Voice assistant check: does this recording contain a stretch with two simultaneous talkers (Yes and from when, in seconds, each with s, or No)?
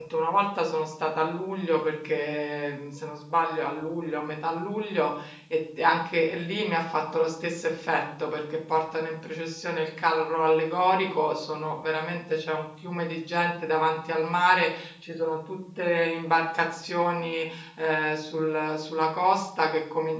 No